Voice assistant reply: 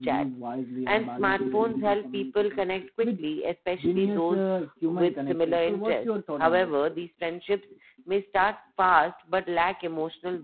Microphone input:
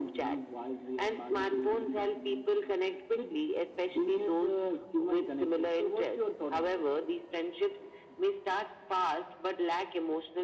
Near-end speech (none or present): none